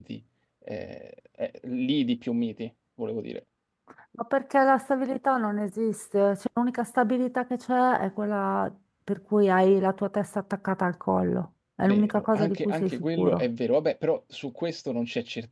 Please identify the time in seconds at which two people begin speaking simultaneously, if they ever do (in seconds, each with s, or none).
11.8 s